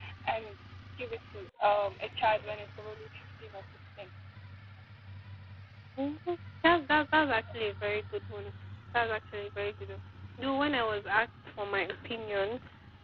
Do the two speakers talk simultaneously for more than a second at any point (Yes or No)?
No